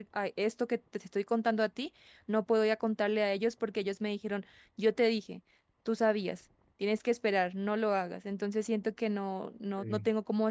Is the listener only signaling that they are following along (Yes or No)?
Yes